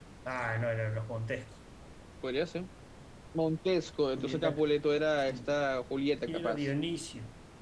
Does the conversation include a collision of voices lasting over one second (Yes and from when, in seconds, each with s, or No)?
No